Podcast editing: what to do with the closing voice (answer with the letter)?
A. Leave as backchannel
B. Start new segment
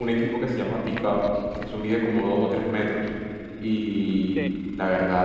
A